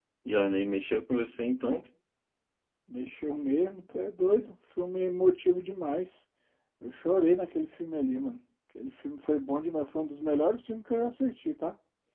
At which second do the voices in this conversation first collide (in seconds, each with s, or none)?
none